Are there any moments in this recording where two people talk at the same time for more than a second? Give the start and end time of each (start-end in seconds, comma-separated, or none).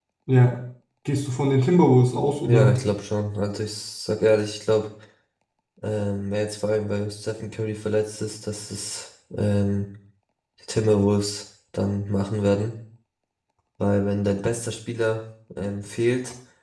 none